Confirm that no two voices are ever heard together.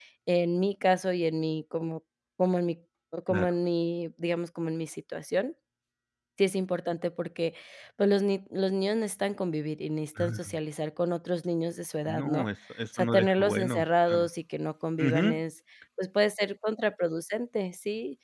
No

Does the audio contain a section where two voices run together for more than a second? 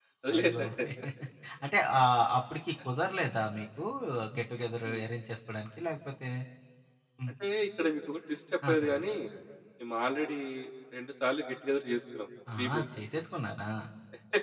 No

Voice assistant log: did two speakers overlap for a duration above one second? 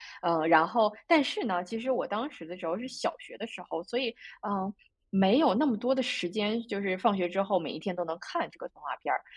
No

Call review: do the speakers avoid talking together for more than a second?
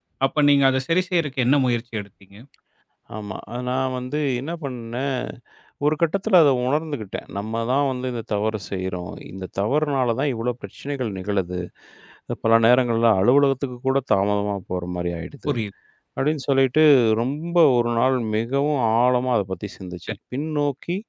Yes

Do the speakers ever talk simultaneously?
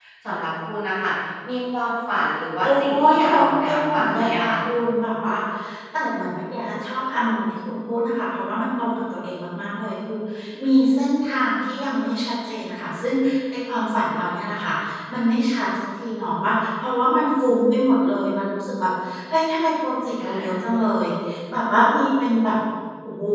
Yes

